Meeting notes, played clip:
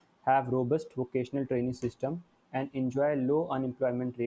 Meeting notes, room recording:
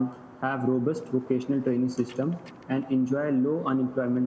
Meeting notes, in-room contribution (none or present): none